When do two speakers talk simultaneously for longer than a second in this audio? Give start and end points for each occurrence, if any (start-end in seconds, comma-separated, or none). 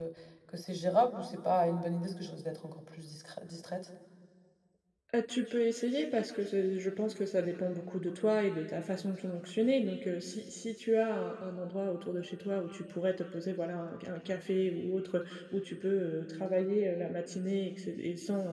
none